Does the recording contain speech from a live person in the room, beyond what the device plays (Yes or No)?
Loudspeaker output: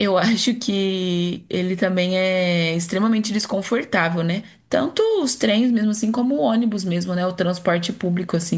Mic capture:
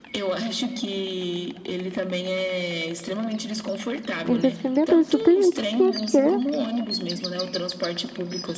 Yes